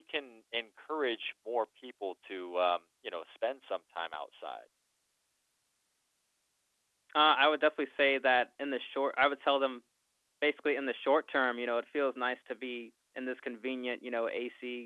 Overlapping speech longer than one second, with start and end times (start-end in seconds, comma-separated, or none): none